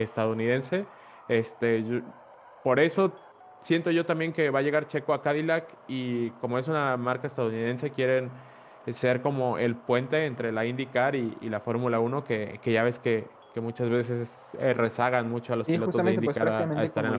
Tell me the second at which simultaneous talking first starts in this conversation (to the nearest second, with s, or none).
16 s